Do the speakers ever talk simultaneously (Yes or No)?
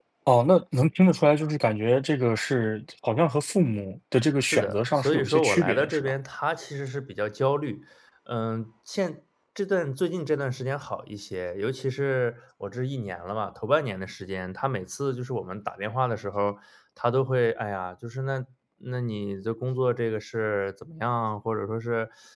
Yes